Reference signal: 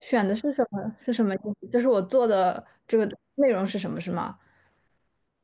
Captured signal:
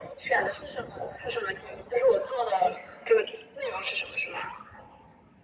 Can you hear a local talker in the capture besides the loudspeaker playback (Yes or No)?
No